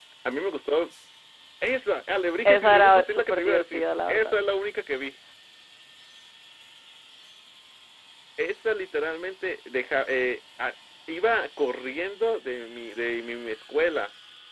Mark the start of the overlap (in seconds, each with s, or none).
2.4 s